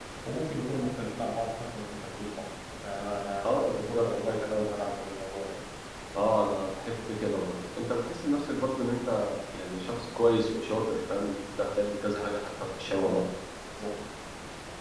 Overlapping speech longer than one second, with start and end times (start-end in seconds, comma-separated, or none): 3.4-4.9